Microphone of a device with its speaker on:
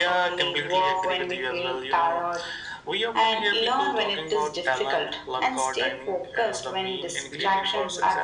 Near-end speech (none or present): present